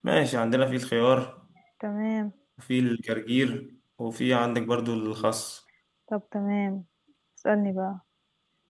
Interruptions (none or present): none